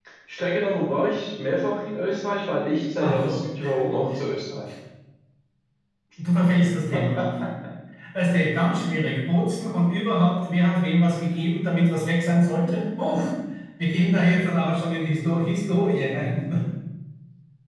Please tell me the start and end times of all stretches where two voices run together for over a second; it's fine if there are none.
none

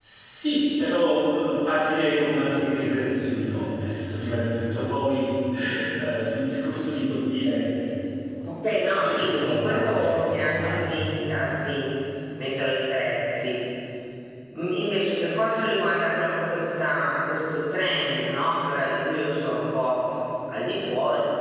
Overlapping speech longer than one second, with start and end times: 9.0-10.9

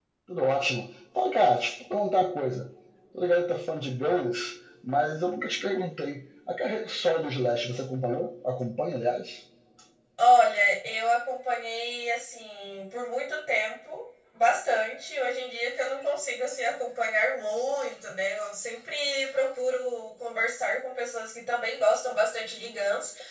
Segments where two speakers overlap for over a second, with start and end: none

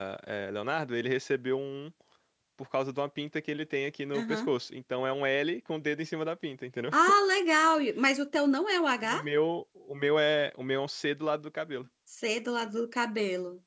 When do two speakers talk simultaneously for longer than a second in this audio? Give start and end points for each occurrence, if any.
none

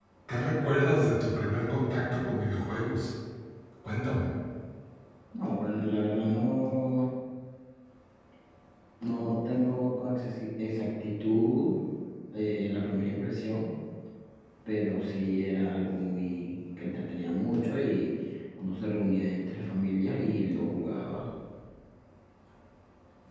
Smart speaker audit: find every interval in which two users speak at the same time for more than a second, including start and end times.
none

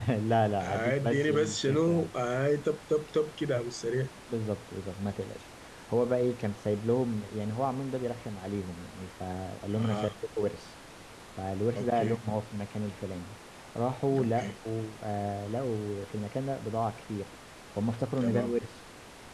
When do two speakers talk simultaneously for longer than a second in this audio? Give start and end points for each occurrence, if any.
0.6-2.1

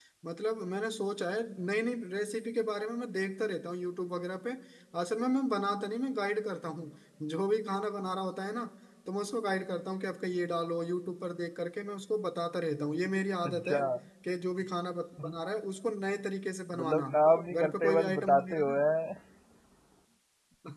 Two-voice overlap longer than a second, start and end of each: 17.5-18.8

